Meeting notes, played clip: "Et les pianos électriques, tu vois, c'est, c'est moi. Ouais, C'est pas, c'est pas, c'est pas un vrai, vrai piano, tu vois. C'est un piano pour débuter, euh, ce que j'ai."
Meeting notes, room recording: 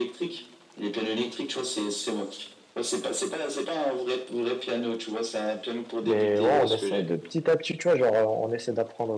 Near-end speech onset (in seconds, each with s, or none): 6.0 s